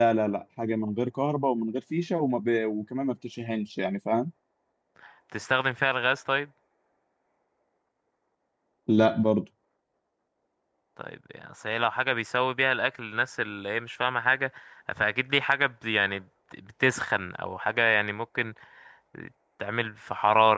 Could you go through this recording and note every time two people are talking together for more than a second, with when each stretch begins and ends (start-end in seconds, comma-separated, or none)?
none